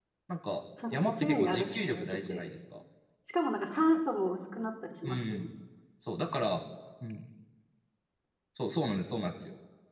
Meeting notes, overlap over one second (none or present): present